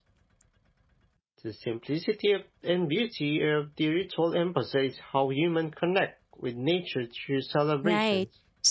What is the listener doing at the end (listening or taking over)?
taking over